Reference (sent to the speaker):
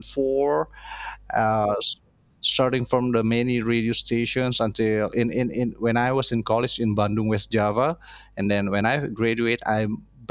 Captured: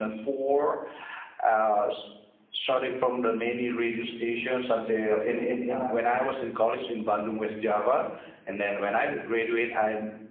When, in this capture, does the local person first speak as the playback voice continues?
5 s

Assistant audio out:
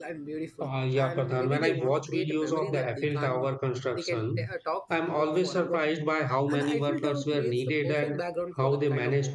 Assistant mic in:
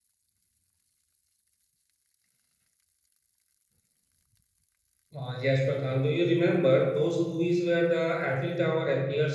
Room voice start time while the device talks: 5 s

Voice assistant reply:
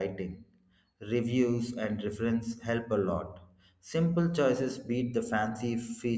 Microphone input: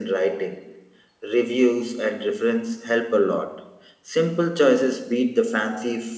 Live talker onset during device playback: none

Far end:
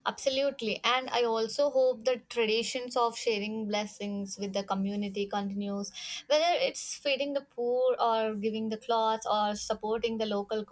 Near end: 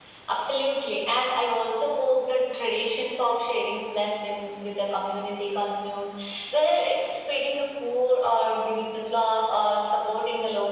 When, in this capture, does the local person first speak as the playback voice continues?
none

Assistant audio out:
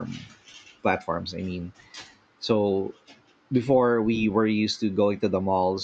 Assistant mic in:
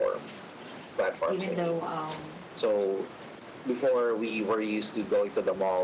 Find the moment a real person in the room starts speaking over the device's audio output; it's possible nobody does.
1 s

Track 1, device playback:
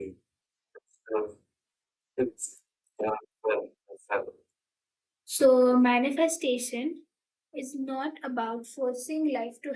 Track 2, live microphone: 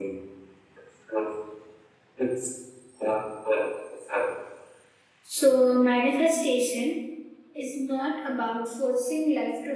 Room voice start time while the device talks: none

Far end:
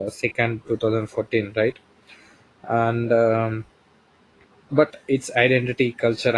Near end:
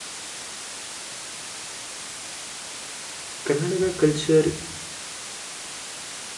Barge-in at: 3 s

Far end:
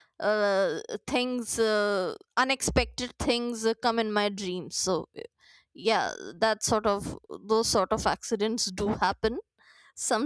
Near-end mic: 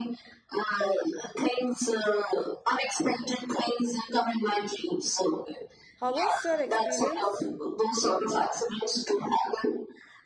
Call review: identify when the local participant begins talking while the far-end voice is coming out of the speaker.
6 s

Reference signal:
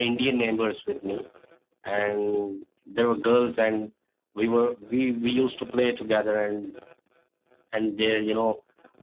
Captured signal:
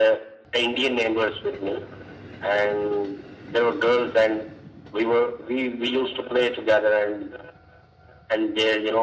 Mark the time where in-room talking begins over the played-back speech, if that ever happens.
none

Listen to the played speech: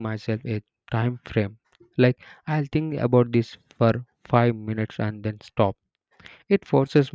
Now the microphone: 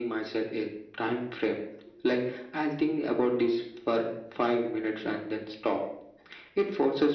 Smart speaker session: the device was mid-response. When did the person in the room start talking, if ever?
none

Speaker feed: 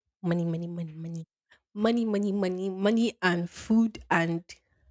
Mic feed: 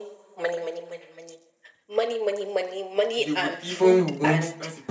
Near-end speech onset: 3 s

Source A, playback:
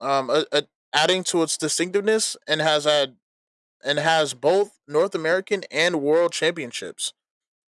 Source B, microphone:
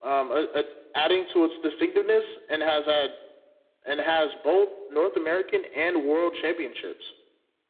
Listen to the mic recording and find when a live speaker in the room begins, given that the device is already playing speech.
none

